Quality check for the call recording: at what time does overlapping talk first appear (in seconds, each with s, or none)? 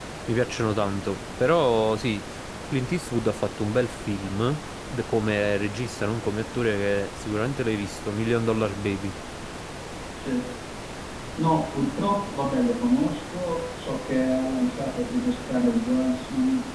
none